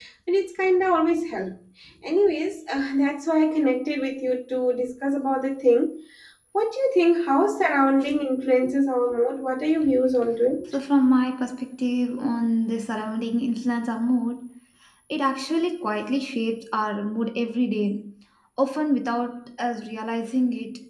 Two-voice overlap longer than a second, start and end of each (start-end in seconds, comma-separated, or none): none